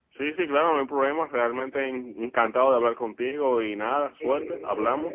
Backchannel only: No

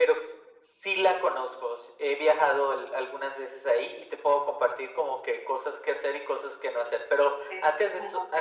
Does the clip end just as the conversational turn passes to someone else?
No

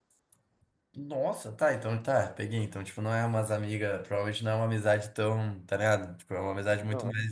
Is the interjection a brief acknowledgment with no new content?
Yes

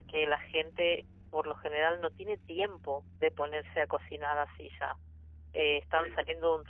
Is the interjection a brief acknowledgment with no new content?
Yes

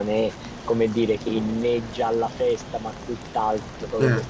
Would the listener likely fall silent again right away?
Yes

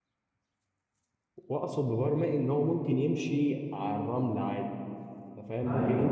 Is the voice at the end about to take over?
Yes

